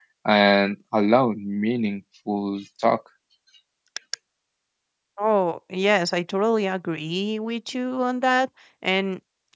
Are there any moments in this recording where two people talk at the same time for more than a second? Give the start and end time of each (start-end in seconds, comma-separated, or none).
none